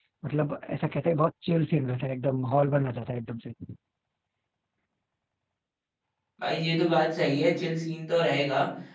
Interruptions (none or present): none